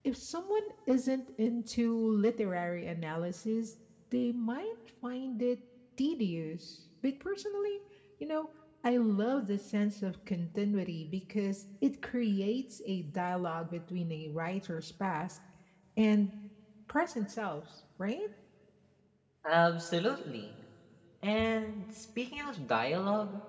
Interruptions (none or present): none